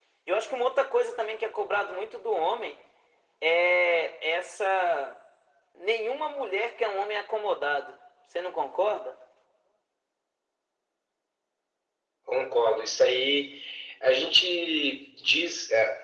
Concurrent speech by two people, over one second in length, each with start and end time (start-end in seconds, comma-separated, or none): none